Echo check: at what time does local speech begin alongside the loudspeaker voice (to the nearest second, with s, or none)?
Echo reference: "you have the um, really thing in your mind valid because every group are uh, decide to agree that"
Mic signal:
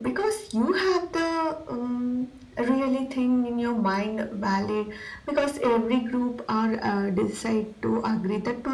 none